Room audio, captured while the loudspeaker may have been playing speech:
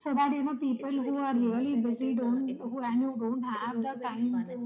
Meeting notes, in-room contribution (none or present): present